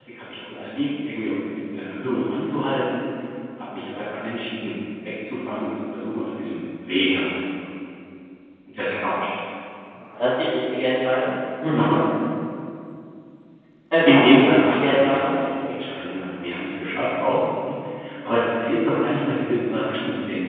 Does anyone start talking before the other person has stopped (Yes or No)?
Yes